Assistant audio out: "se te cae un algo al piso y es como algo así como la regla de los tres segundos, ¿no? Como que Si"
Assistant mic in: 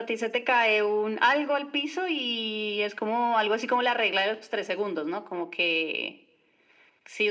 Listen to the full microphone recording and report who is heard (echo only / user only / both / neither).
echo only